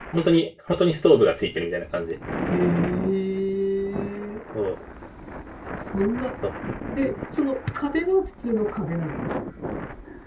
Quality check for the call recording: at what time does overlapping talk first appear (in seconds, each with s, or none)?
none